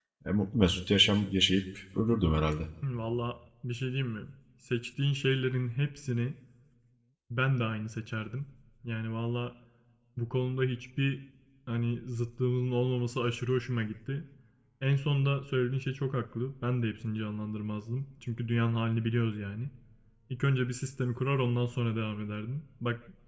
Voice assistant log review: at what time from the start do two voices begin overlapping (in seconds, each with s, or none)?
none